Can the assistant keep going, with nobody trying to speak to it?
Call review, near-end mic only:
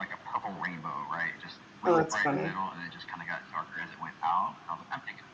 No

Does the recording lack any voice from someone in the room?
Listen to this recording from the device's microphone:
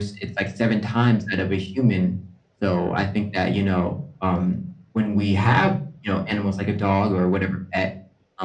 Yes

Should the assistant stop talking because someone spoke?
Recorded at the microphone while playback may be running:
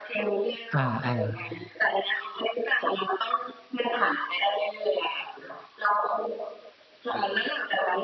Yes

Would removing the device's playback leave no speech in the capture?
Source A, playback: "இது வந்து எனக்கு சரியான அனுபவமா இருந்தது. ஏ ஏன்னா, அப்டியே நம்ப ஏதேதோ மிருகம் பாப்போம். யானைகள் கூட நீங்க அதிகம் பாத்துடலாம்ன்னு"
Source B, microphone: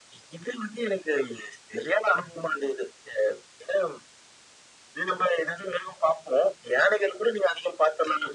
Yes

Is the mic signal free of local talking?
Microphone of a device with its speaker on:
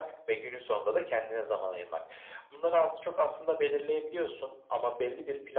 Yes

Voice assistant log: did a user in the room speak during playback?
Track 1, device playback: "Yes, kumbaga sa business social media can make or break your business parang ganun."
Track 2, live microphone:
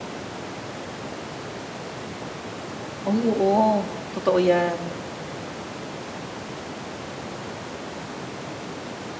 Yes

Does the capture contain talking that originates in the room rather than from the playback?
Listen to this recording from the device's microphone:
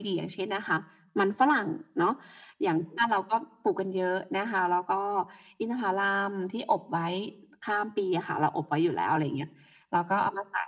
No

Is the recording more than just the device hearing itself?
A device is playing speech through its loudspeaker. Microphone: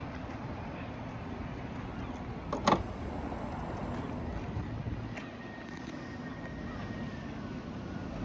No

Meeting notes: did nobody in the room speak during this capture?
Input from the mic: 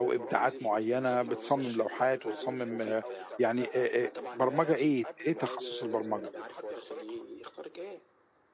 No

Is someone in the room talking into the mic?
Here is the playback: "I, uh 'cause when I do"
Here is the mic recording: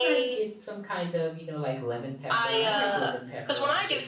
Yes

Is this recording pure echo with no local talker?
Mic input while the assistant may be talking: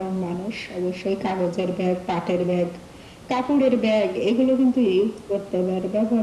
Yes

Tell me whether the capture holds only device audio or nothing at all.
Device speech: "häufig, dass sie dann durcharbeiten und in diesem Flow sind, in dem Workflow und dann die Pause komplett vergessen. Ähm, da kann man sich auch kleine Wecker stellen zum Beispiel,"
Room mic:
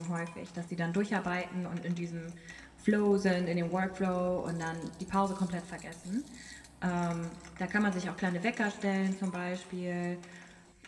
Yes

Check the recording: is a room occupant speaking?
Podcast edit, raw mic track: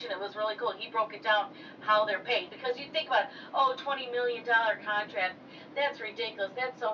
No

